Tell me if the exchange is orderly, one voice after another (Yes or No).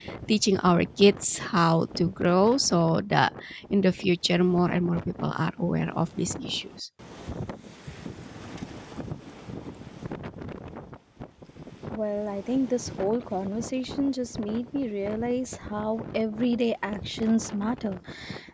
Yes